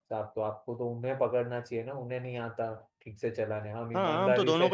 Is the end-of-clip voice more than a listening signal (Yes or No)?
Yes